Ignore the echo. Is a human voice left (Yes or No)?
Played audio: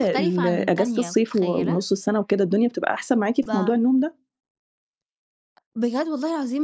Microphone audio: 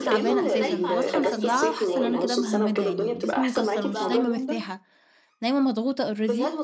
Yes